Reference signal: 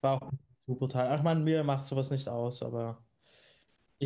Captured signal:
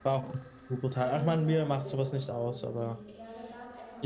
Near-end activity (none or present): present